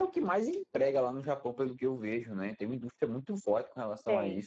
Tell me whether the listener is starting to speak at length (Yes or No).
Yes